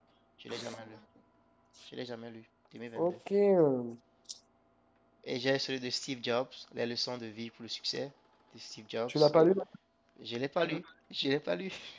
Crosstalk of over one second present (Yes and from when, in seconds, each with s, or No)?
No